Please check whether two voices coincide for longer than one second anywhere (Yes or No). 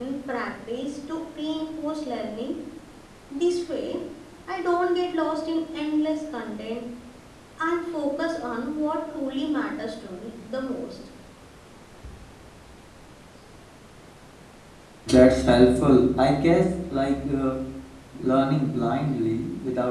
No